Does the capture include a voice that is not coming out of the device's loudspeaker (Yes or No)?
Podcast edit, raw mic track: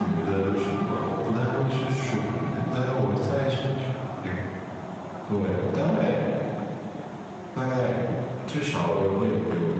Yes